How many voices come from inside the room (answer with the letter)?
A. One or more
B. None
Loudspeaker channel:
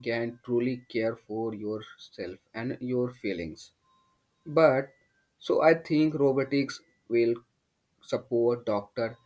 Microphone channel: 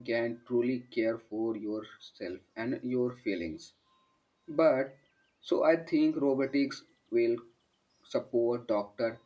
B